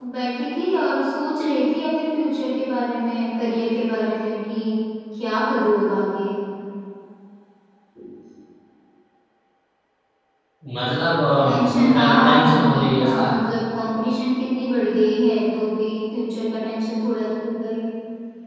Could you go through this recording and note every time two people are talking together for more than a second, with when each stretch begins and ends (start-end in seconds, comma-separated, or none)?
11.4-13.2